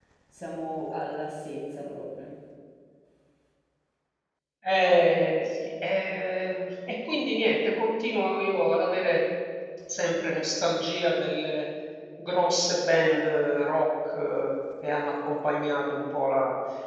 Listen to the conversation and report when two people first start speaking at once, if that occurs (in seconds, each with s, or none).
none